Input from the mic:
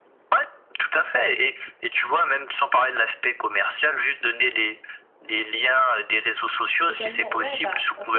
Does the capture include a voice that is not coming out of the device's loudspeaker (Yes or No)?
Yes